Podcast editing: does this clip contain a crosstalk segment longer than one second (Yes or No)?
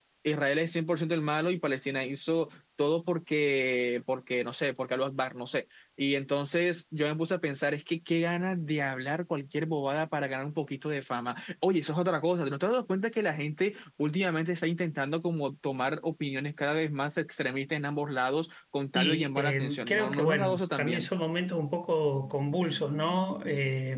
Yes